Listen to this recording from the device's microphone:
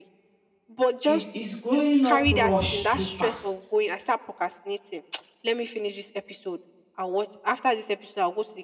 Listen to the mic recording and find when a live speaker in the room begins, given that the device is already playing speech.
1.0 s

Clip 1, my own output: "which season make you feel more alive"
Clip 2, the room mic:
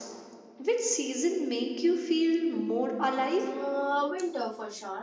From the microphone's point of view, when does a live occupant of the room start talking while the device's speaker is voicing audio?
2.3 s

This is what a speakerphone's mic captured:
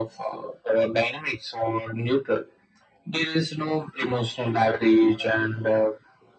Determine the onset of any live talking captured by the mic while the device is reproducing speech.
none

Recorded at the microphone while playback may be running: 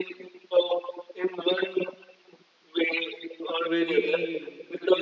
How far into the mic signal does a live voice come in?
3.6 s

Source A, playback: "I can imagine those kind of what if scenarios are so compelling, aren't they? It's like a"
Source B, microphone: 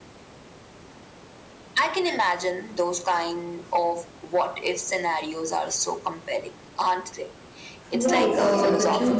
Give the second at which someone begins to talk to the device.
7.9 s

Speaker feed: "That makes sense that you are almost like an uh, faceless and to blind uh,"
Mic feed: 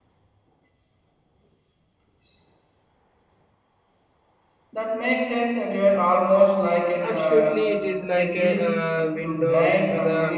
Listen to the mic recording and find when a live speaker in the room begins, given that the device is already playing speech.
7.0 s

